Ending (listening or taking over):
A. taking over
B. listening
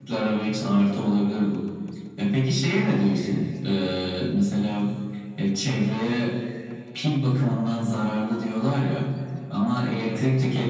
B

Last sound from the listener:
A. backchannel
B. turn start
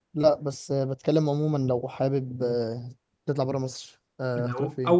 B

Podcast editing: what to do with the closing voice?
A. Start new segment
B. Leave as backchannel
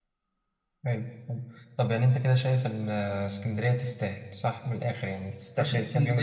A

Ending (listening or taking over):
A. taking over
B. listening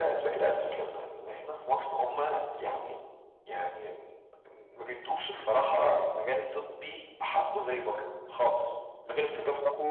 B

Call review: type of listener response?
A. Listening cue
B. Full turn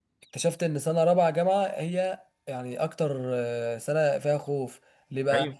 A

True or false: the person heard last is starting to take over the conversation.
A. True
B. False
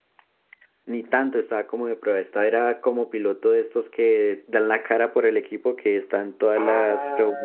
A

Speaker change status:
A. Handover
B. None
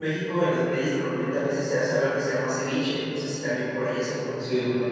A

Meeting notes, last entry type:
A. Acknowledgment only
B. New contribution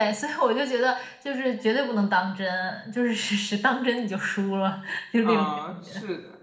B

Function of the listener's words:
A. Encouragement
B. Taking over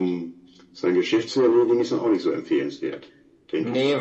B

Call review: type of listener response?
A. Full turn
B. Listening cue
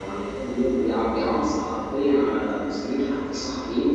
B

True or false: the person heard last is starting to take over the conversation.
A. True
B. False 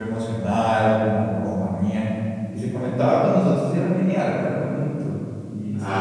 A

